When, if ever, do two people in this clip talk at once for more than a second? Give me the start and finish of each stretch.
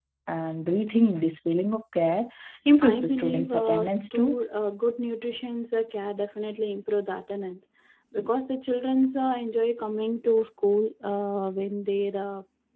2.8-4.4

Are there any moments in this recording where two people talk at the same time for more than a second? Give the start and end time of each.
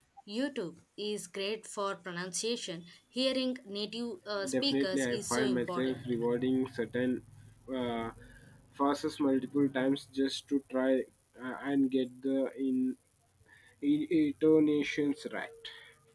4.5-6.0

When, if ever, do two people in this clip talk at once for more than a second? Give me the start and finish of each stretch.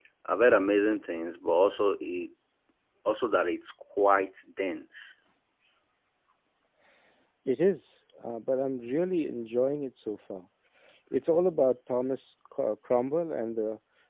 none

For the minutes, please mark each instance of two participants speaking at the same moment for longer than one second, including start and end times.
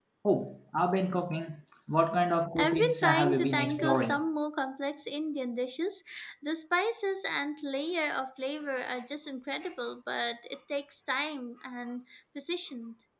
2.6-4.2

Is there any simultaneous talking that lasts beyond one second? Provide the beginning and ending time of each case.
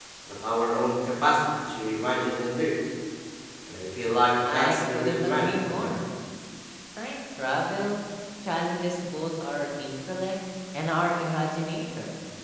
4.5-5.9

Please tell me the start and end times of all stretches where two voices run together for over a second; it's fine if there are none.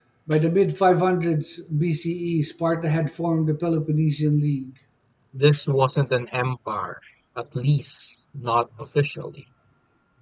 none

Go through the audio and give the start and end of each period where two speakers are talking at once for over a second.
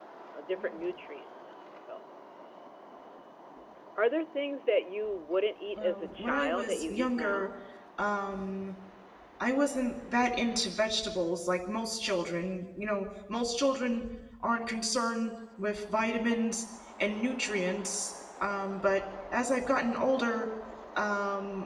5.8-7.5

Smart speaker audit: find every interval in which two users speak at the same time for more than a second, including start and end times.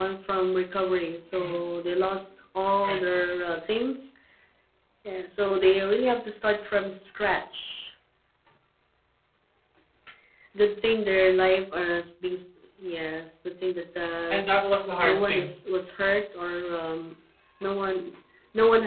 none

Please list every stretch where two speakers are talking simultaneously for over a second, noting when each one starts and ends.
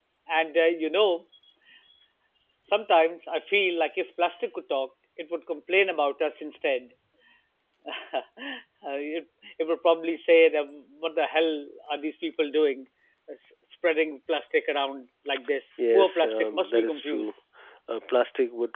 15.9-17.3

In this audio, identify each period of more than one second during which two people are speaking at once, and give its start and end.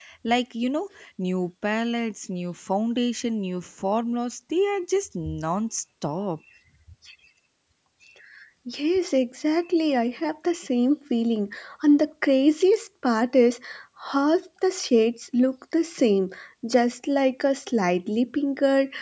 none

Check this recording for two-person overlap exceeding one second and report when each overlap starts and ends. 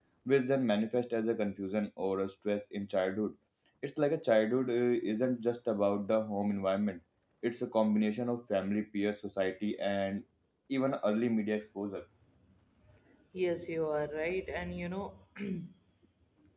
none

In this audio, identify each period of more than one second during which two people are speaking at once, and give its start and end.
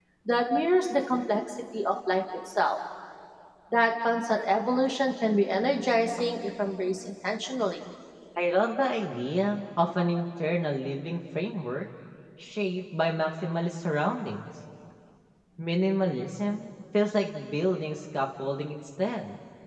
none

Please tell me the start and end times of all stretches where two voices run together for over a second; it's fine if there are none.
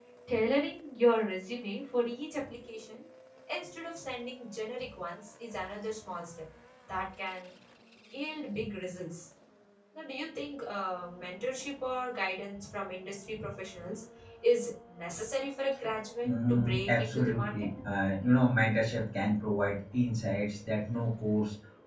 16.3-17.5

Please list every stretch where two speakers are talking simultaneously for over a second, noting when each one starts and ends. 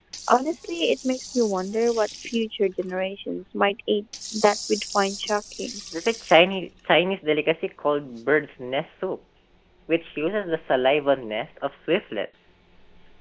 none

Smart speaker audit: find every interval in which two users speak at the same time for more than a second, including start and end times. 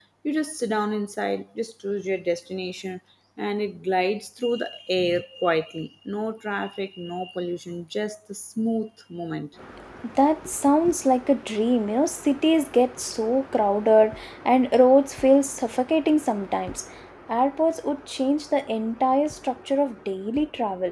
none

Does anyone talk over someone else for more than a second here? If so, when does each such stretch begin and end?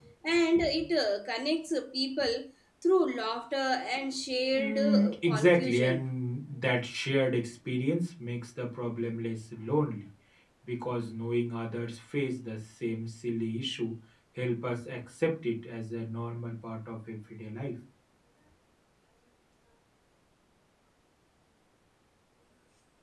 4.5-6.1

